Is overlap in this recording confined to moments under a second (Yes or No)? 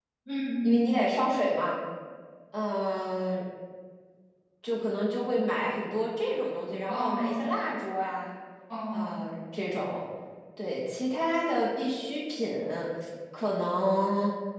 Yes